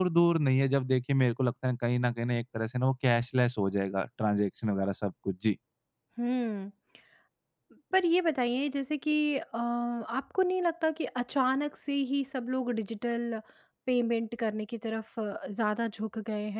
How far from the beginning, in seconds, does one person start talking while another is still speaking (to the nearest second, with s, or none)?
none